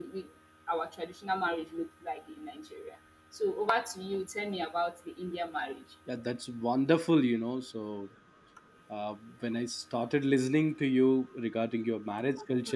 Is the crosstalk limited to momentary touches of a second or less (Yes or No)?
Yes